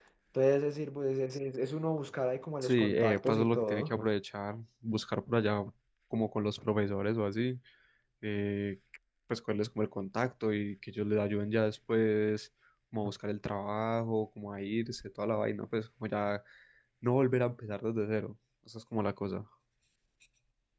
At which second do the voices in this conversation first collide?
2.6 s

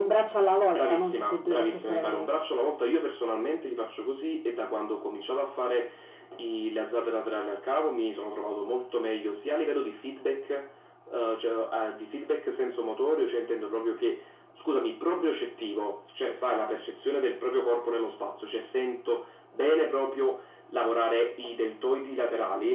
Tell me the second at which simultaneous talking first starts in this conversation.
0.7 s

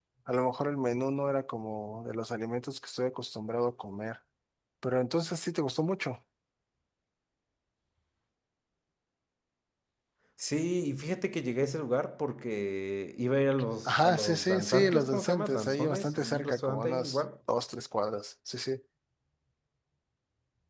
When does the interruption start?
13.8 s

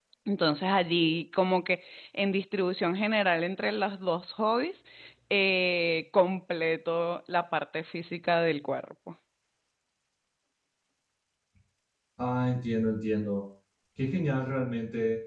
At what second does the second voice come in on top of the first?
none

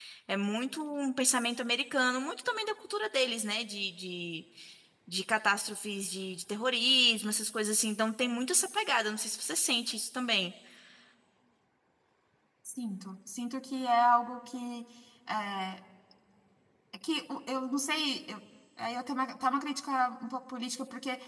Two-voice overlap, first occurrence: none

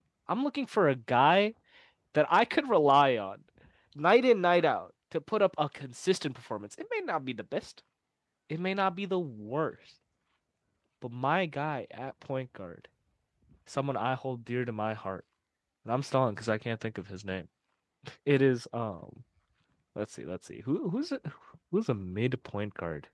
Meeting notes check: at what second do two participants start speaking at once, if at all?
none

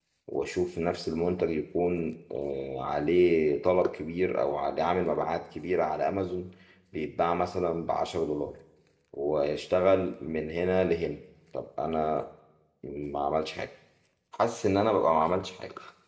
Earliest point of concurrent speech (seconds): none

